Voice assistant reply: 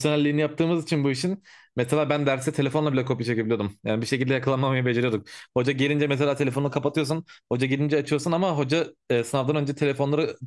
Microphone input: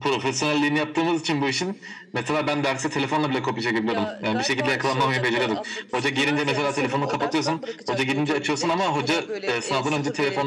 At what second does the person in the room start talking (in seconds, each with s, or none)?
3.8 s